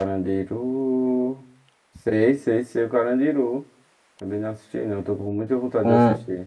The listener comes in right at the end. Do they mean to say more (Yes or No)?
Yes